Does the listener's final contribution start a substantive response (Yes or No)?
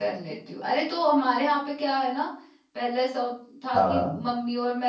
No